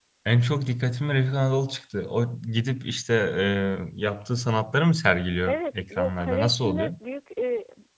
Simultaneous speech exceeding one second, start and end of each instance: 5.5-6.9

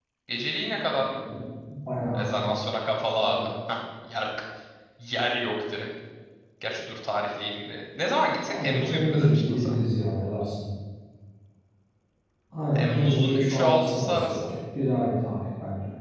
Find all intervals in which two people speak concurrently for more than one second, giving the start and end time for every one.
8.5-9.7, 12.8-14.4

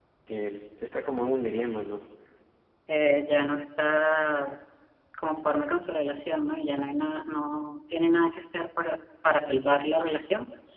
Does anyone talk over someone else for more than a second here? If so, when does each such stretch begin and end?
none

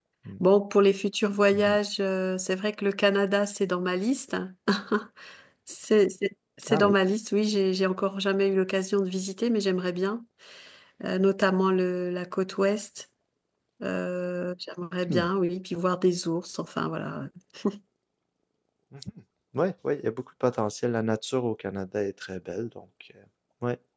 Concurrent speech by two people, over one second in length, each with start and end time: none

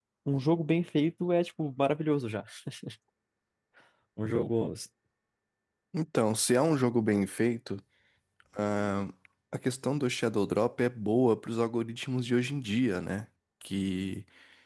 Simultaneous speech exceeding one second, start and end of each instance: none

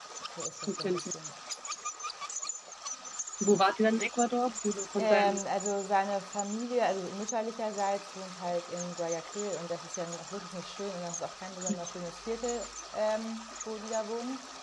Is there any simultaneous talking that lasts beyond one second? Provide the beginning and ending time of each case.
none

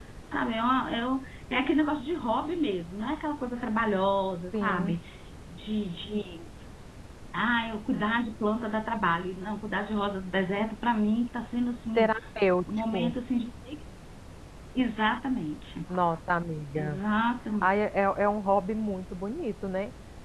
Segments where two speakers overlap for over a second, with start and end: none

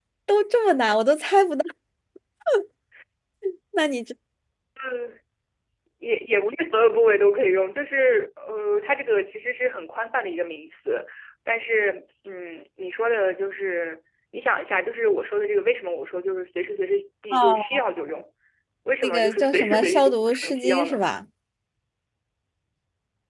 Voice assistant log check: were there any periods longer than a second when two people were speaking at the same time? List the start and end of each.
19.0-21.0

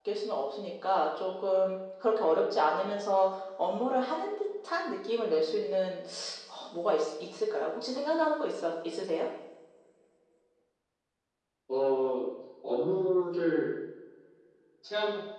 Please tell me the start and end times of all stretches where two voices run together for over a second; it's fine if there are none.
none

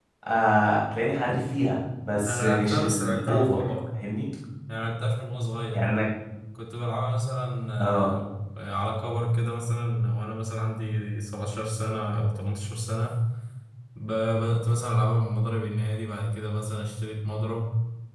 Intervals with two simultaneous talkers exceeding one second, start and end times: 2.3-3.6

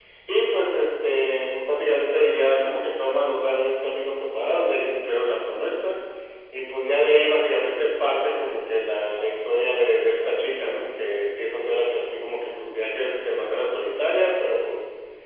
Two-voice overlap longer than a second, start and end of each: none

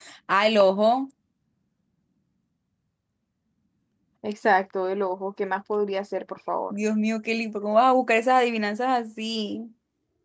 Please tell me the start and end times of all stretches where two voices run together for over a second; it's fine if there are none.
none

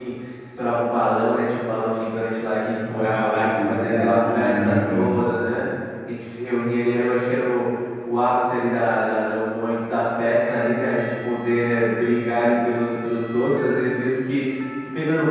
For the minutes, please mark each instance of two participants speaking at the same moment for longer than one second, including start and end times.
2.9-5.1

